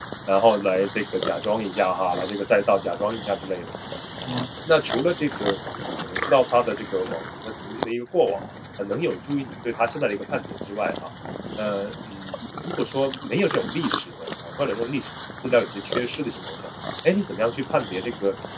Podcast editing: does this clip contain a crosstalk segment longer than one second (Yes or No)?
No